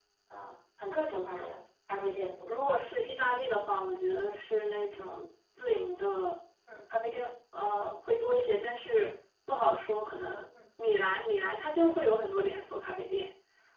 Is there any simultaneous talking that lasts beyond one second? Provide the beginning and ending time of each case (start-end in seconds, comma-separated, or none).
none